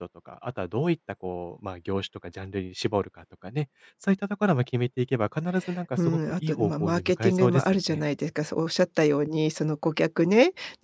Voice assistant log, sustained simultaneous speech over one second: present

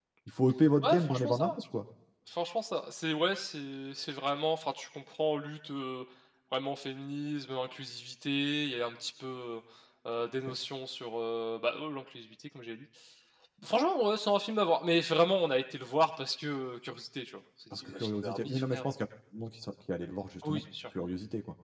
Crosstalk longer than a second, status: present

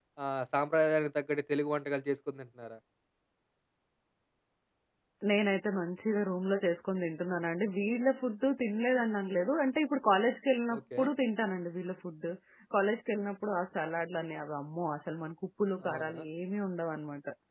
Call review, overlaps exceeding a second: none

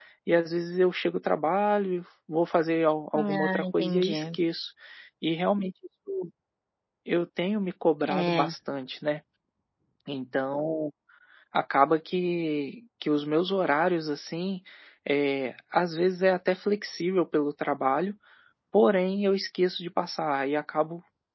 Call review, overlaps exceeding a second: present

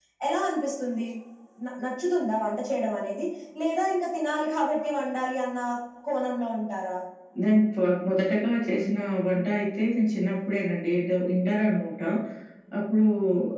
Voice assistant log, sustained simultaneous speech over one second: none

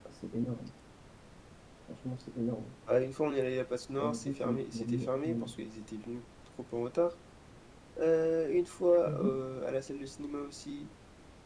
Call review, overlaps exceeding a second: present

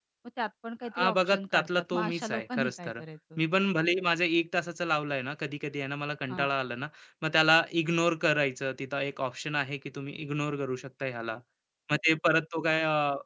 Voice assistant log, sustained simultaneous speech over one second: present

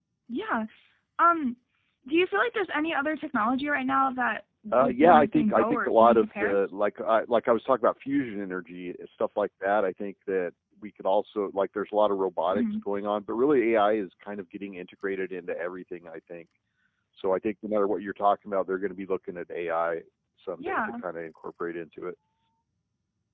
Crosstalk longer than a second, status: present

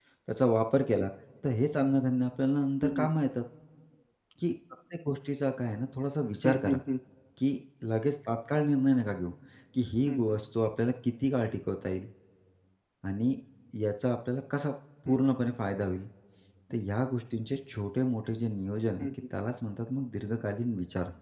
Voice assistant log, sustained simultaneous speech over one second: none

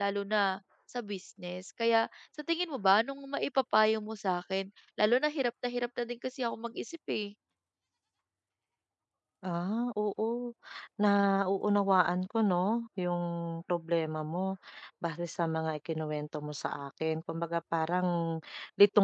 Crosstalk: none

